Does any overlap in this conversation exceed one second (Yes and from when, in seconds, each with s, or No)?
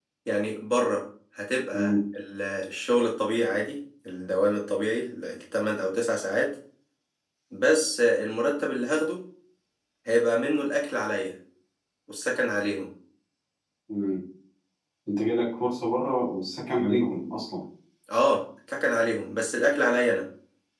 No